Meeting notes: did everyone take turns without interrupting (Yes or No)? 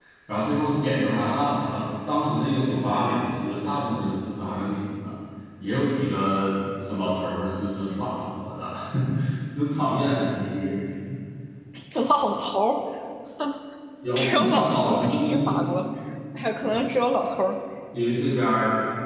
No